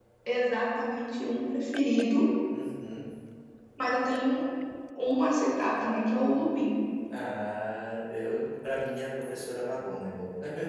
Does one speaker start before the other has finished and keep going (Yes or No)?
No